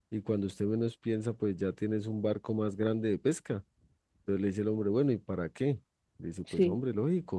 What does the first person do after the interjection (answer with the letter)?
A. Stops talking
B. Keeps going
B